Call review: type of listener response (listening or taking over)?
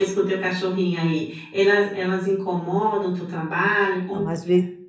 taking over